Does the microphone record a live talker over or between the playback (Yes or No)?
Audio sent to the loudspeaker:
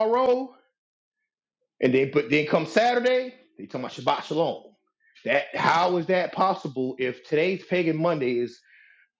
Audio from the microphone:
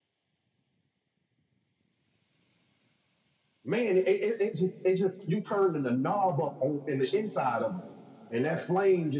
Yes